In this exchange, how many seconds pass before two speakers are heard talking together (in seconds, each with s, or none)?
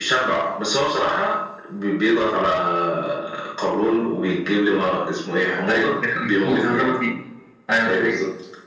5.7 s